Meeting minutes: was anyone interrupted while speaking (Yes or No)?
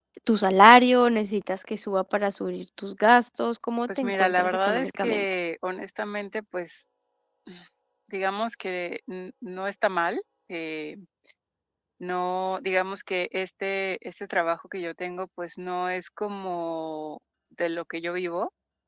Yes